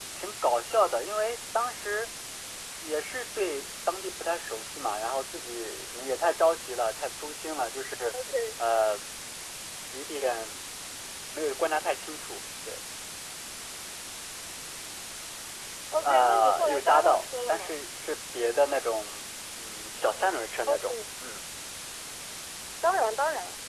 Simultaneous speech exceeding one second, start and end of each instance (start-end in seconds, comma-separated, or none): 16.0-17.8